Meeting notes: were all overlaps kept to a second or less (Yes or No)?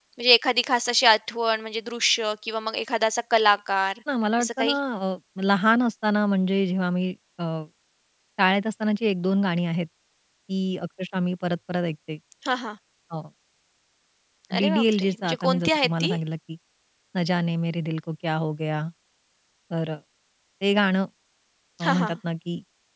No